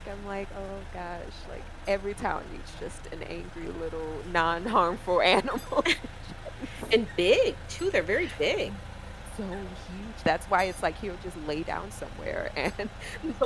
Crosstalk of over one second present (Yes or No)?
No